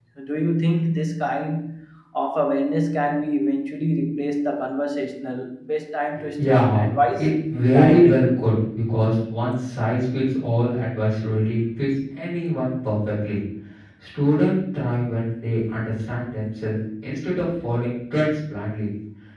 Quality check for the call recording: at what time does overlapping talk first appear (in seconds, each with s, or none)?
6.2 s